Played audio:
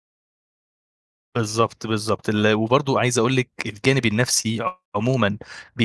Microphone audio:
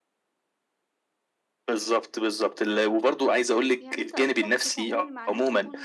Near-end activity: present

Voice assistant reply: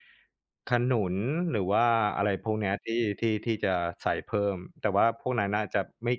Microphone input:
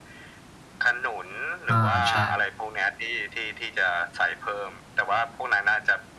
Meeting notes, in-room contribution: present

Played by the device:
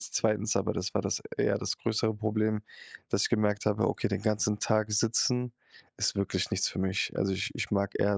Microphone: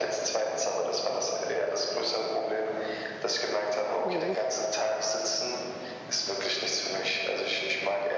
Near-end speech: present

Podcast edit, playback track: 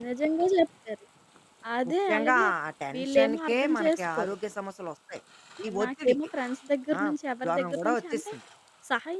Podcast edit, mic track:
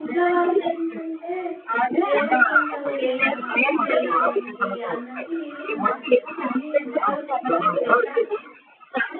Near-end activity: present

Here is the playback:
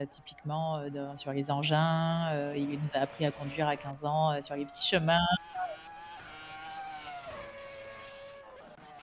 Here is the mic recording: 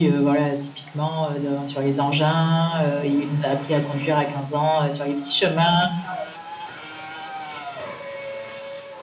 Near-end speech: none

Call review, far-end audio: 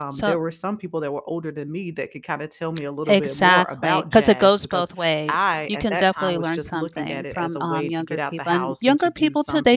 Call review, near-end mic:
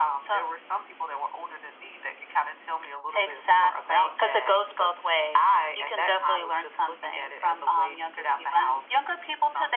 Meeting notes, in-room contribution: none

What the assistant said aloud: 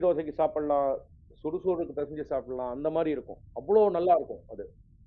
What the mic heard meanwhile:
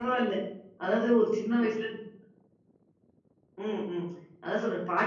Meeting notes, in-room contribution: present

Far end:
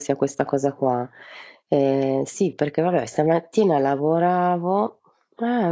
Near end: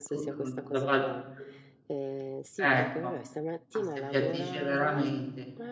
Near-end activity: present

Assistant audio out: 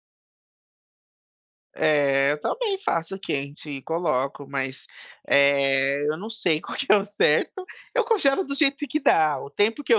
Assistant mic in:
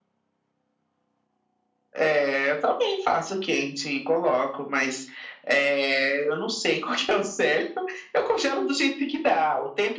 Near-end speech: none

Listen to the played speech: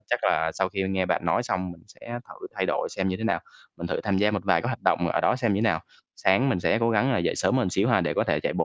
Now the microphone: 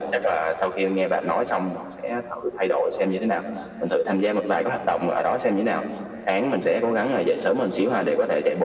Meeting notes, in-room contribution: none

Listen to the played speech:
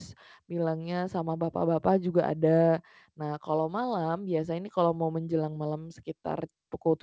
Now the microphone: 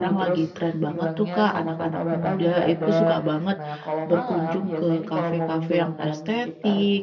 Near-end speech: present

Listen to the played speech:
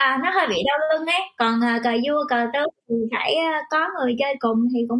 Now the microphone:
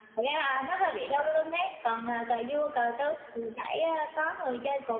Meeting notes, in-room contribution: none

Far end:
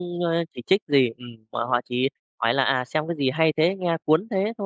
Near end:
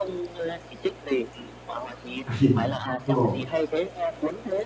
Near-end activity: present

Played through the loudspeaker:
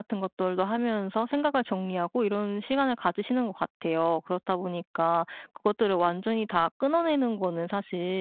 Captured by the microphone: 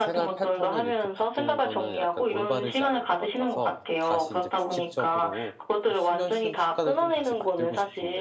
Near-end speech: present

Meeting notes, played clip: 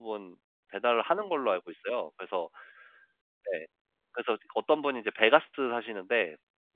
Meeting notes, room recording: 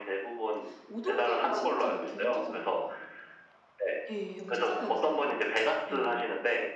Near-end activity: present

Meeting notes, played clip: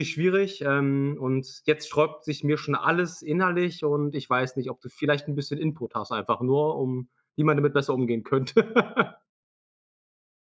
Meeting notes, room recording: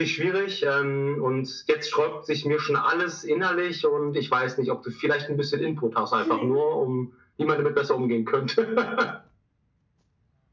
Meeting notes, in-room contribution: present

